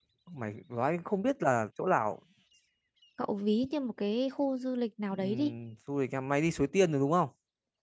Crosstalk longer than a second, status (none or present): none